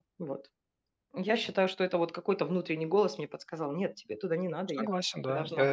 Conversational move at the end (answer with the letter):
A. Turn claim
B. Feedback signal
A